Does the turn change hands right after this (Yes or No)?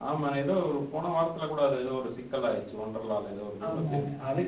Yes